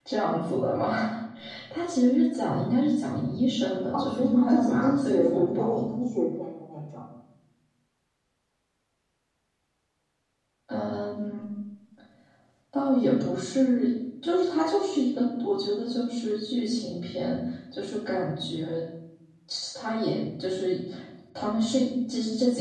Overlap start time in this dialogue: 3.9 s

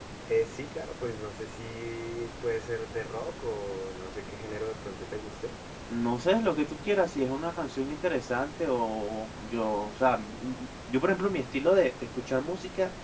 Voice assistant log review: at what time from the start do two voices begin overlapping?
none

